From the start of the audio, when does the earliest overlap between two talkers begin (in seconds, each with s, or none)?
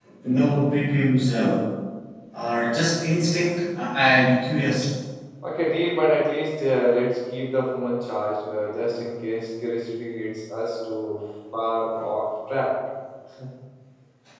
none